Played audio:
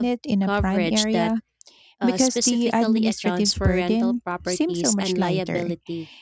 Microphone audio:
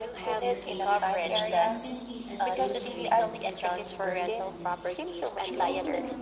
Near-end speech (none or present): present